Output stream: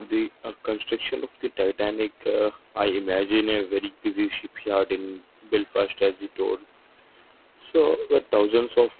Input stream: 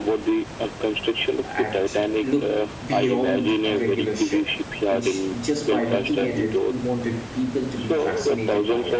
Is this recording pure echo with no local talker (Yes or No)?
No